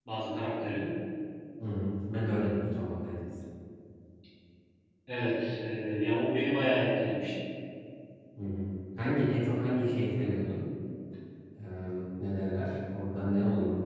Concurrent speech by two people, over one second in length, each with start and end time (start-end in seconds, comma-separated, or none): none